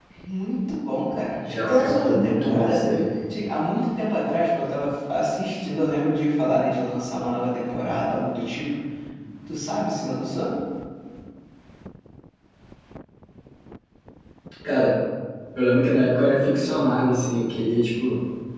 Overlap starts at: 1.4 s

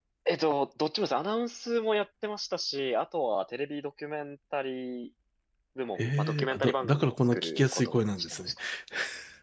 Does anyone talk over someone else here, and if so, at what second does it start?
6.0 s

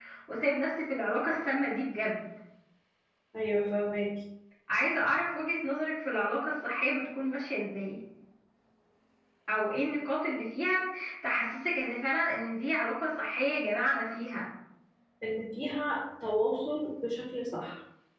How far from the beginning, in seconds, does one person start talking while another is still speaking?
none

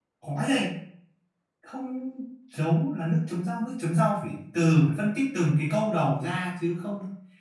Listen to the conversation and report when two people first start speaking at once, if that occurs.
none

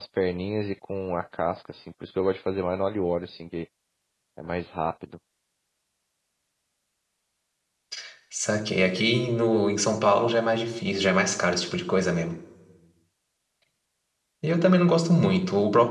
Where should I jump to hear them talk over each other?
none

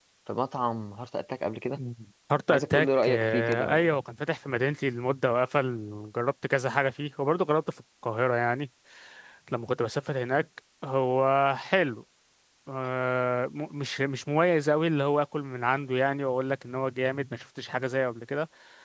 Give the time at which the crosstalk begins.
2.5 s

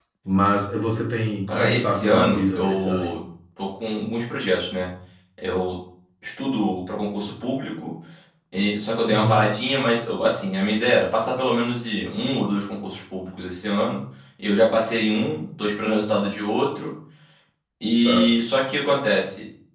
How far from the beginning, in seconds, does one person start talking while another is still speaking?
1.5 s

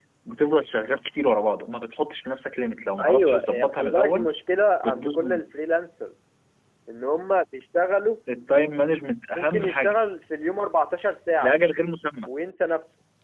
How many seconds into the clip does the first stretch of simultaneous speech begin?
3.0 s

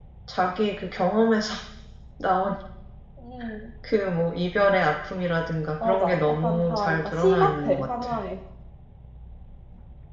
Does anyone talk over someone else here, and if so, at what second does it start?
5.8 s

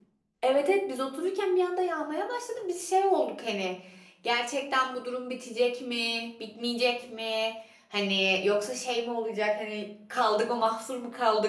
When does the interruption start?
none

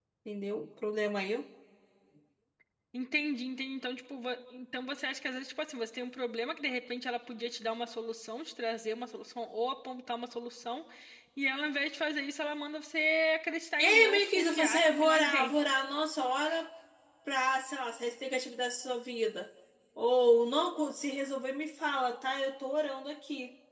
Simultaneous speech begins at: 13.8 s

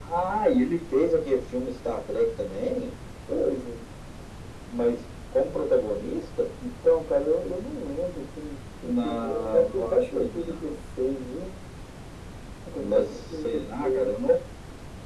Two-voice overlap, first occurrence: 8.9 s

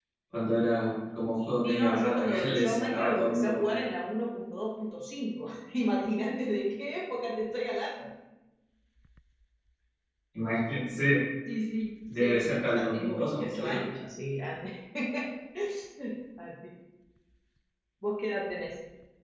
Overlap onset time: 1.6 s

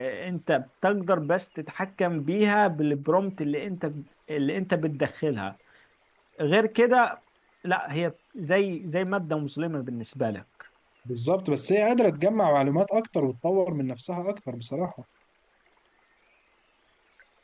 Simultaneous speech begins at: none

